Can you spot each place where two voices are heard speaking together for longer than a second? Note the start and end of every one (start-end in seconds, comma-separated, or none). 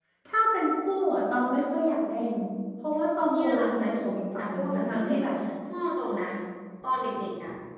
3.3-5.2